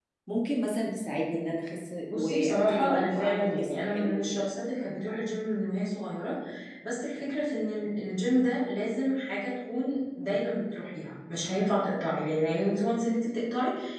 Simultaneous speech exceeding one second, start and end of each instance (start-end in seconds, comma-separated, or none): 2.1-4.5